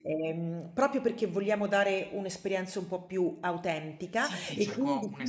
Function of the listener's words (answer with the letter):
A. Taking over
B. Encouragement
A